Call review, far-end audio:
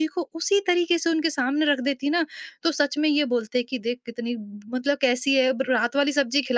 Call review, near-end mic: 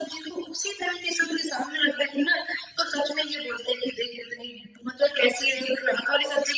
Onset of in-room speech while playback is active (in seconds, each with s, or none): none